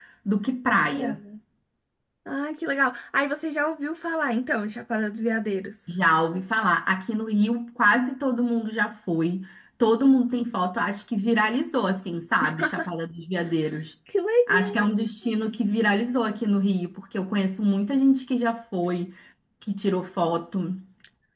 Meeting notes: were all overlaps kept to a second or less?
Yes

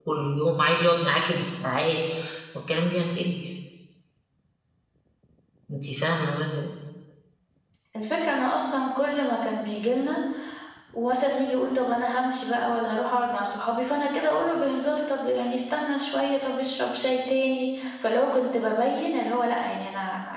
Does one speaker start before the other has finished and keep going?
No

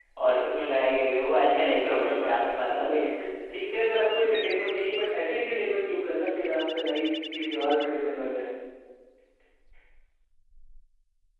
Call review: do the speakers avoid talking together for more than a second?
No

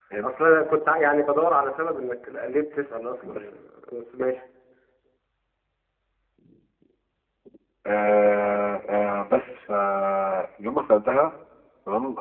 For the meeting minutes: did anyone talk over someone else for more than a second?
No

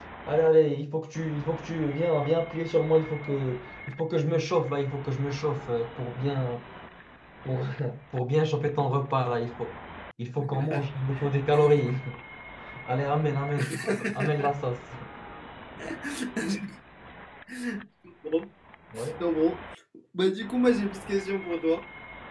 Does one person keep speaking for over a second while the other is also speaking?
No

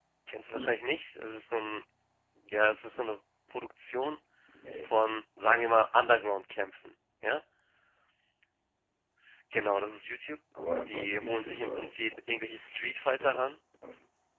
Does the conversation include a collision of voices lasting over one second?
Yes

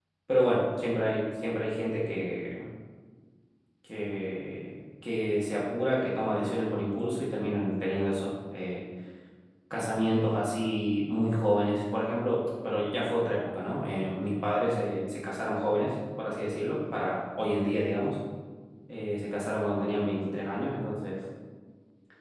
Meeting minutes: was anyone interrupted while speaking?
No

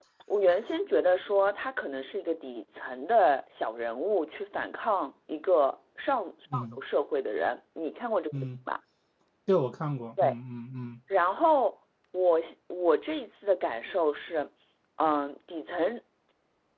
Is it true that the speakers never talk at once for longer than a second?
Yes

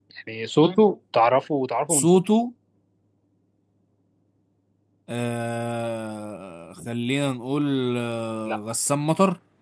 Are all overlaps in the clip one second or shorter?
Yes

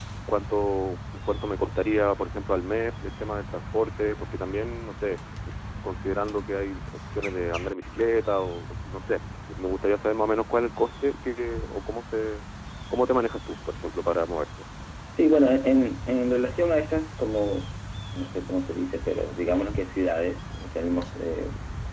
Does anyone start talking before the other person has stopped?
No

